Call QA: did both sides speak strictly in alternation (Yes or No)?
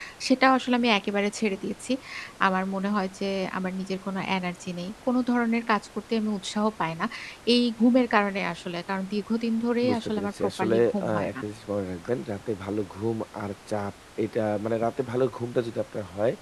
No